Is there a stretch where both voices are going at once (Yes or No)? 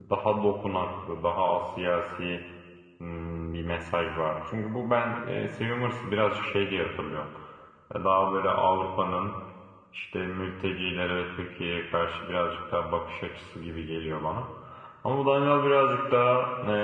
No